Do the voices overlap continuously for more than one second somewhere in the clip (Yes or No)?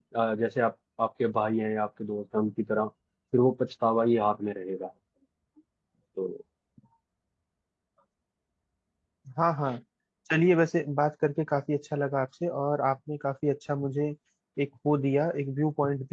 No